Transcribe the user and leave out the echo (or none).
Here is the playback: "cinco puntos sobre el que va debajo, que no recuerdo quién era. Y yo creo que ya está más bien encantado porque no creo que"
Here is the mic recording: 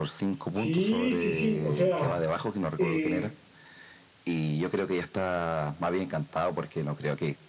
Sí, sí, sí, o sea... eh,